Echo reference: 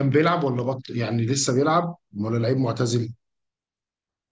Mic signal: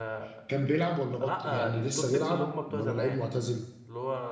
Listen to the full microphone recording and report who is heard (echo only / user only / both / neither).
both